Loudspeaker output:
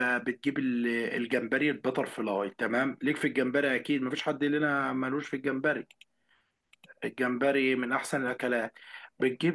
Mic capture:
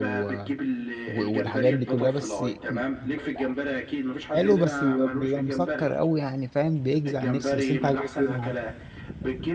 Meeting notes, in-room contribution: present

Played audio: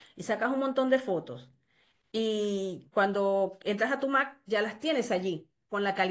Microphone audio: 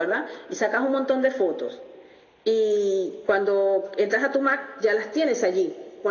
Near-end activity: none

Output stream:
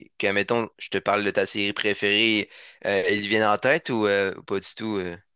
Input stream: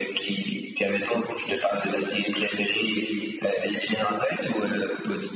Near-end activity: none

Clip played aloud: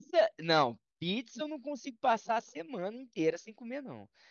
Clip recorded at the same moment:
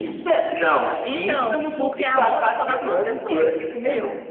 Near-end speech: present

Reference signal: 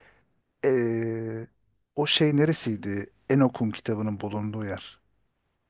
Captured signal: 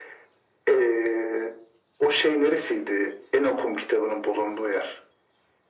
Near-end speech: none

